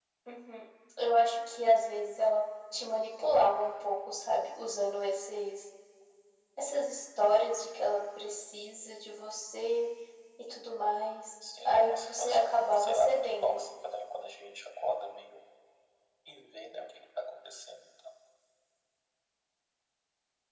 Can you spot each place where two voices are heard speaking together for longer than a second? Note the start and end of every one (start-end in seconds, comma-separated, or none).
11.6-13.6